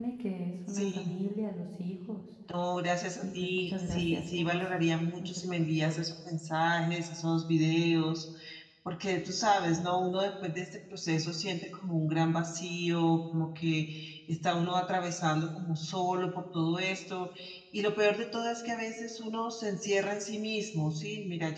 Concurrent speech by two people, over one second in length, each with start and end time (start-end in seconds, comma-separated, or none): 3.2-5.9